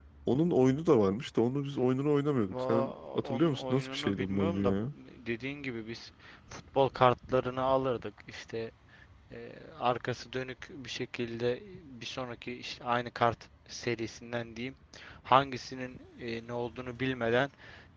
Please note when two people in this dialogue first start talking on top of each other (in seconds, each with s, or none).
2.5 s